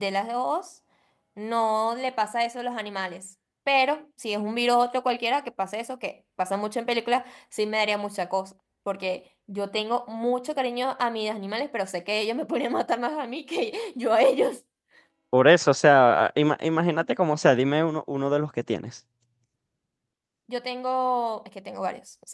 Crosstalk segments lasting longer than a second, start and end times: none

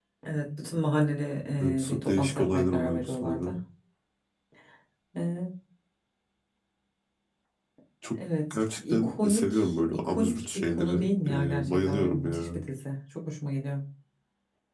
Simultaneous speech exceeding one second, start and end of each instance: 1.6-3.5, 8.5-12.6

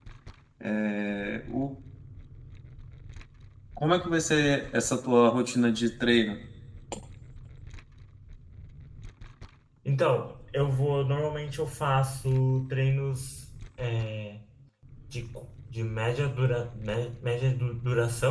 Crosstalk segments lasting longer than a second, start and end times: none

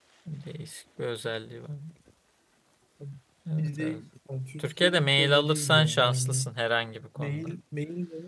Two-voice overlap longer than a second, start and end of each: 4.6-6.4

